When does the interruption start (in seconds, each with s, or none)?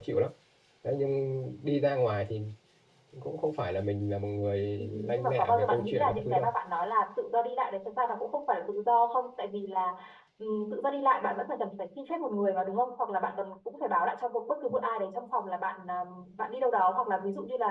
4.8 s